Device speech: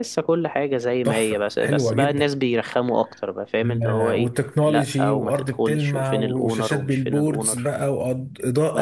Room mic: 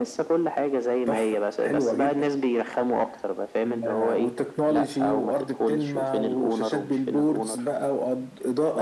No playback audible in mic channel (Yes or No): No